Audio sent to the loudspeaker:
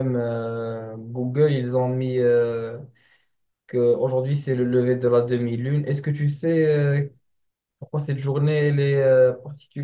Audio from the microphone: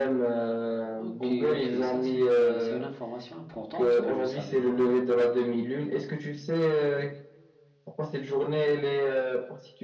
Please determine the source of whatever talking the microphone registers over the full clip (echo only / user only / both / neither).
both